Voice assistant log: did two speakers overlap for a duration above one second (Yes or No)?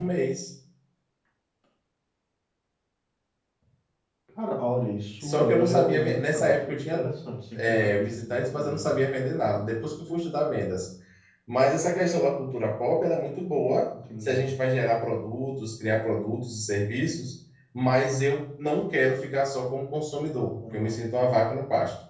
Yes